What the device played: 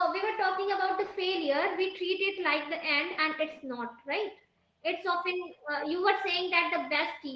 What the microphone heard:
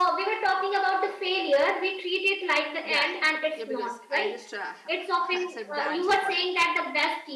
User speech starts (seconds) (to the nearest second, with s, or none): 3 s